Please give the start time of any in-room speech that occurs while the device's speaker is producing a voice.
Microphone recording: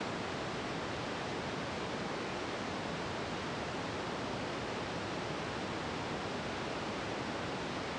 none

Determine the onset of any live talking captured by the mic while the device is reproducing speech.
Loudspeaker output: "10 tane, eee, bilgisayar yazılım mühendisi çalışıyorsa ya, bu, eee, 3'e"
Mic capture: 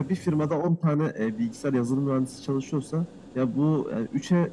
none

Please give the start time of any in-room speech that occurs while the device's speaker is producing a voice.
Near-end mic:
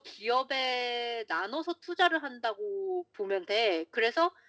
none

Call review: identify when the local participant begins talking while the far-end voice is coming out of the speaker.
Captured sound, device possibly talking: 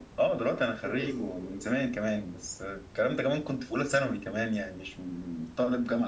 0.8 s

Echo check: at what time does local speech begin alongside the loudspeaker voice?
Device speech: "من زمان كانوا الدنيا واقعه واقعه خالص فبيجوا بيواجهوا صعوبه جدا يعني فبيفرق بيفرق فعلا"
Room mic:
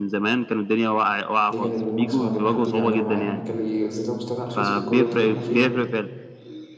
1.5 s

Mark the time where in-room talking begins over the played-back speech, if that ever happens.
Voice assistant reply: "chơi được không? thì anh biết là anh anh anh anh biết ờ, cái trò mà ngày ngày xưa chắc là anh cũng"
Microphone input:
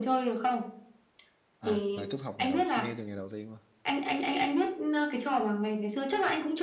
1.6 s

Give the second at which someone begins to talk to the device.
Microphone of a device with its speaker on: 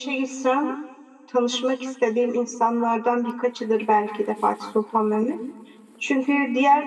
none

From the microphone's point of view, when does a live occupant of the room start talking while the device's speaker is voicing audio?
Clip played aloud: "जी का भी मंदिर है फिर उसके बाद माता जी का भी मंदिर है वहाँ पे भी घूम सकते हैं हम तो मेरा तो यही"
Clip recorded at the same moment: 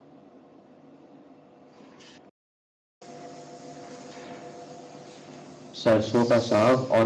5.7 s

